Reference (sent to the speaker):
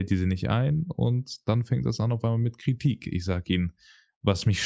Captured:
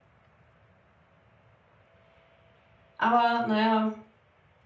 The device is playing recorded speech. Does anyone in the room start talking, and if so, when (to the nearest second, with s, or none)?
3 s